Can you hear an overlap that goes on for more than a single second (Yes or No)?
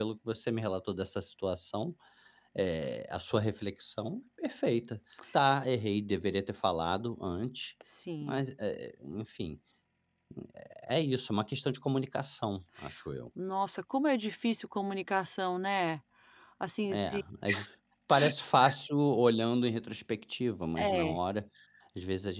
No